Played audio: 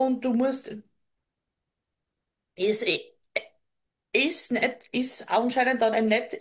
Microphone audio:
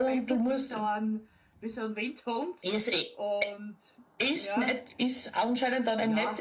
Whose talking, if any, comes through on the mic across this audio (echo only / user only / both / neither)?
both